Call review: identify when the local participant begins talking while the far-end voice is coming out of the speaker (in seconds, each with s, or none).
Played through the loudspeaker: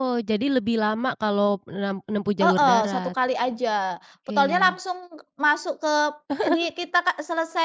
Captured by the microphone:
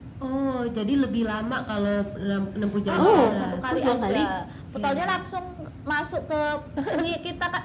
3.0 s